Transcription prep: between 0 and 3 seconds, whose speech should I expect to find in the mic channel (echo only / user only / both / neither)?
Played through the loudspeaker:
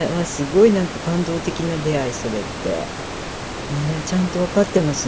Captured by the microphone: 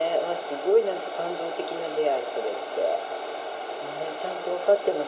echo only